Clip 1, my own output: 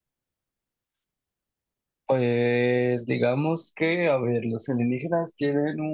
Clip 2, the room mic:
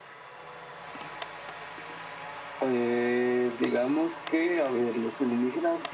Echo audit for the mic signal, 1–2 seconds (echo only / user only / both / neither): neither